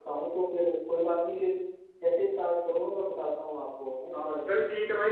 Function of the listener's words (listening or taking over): taking over